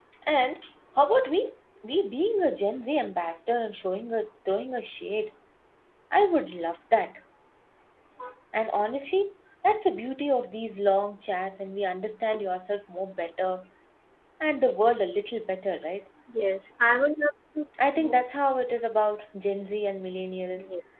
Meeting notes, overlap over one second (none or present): none